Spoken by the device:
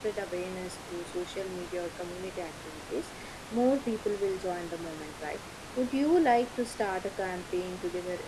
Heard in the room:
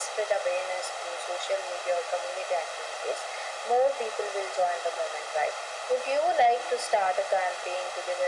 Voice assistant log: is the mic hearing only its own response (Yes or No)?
Yes